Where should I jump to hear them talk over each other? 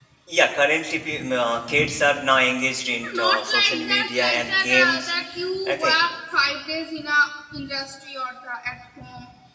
3.1 s

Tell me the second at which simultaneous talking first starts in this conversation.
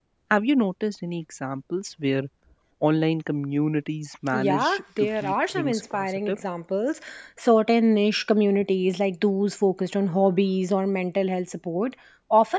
4.3 s

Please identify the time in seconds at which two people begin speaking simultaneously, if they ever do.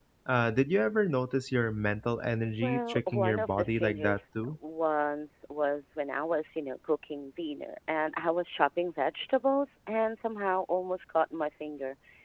2.6 s

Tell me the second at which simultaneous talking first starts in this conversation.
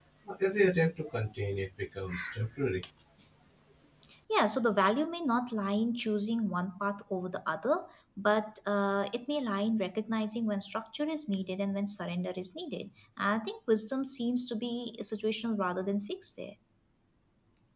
none

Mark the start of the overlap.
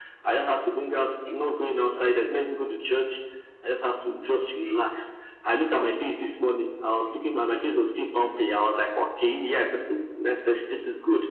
none

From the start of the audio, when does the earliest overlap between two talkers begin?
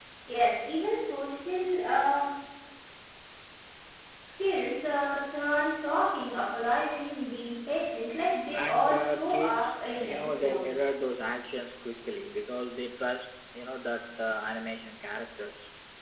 8.5 s

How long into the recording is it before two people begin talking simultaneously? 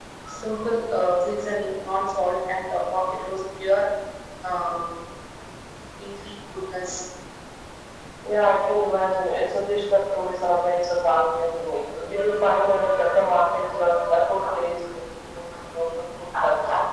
none

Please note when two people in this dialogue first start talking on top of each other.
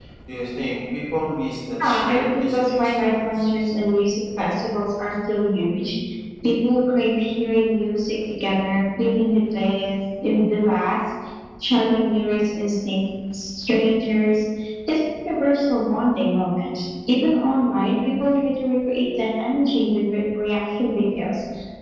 1.8 s

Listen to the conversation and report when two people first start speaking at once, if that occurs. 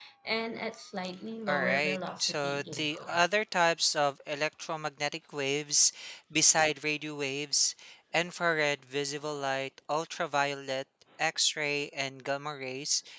1.5 s

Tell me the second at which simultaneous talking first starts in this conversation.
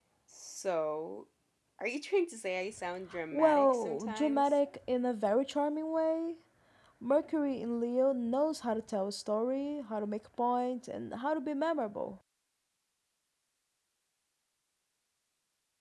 3.1 s

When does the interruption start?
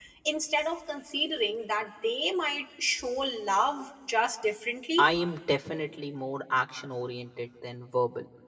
none

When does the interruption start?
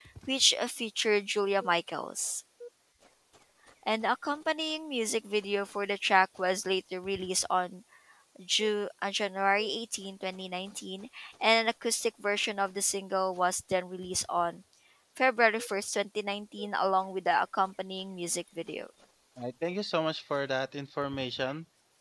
none

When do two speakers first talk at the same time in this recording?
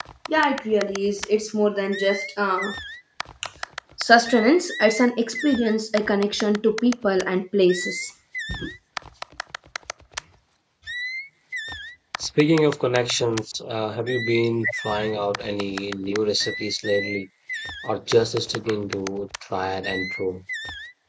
none

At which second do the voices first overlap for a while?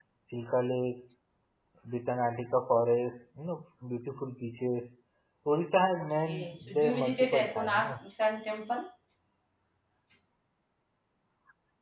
6.0 s

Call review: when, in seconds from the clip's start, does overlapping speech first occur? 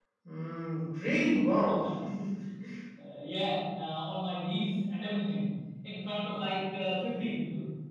none

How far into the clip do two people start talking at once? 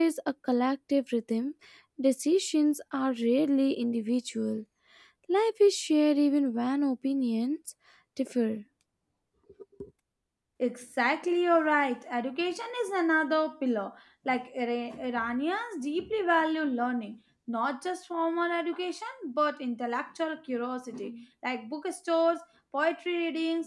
none

